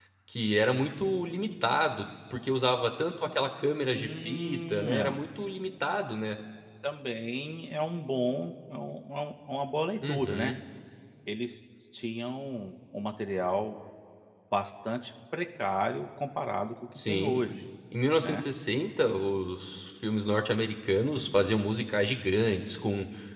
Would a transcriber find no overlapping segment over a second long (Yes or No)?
No